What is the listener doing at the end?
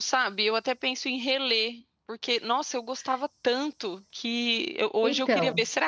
listening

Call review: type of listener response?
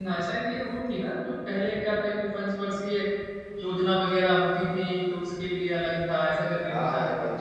taking over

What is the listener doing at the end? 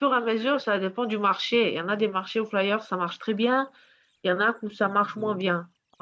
listening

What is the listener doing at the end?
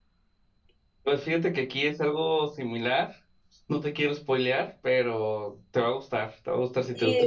taking over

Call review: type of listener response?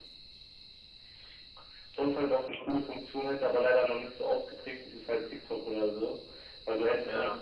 listening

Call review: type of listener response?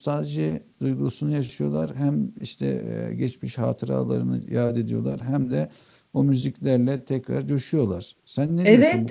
taking over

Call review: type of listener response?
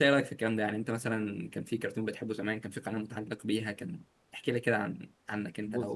taking over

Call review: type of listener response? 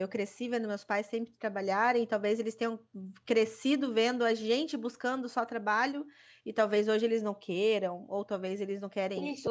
taking over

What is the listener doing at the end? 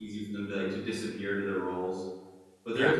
taking over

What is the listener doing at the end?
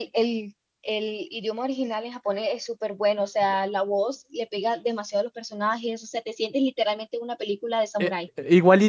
taking over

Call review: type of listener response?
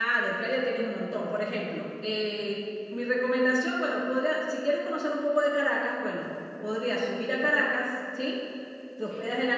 listening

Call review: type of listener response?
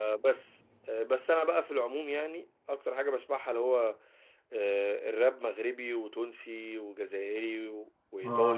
taking over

